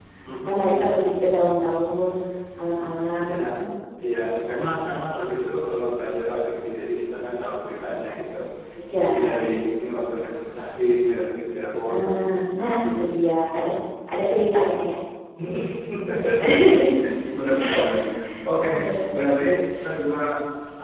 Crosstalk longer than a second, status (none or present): none